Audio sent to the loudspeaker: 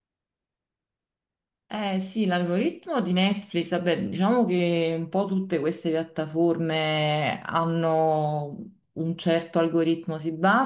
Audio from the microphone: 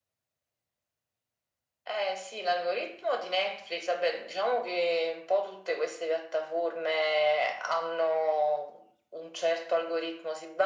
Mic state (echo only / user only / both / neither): echo only